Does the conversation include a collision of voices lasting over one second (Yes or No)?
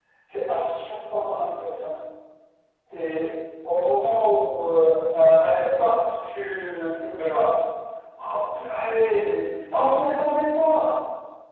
No